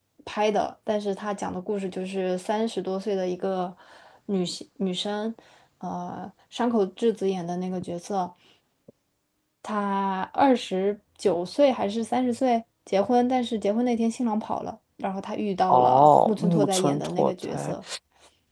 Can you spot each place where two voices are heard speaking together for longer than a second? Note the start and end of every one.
15.7-17.7

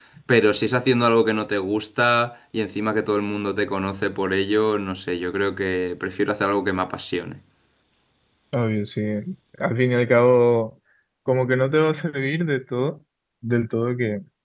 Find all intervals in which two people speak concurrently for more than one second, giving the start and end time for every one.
none

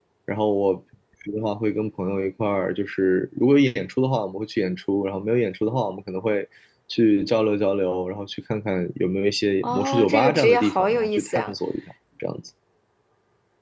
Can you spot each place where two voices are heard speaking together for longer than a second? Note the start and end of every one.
9.6-11.5

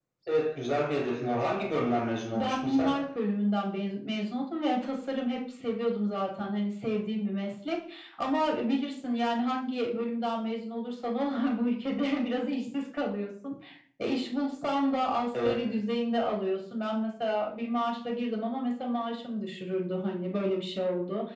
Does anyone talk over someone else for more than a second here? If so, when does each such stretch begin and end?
none

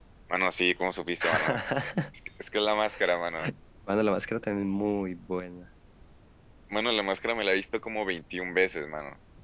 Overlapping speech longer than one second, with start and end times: none

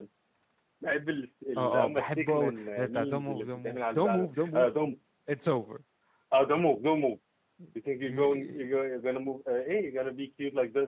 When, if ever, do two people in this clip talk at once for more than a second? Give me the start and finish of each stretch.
1.6-4.7

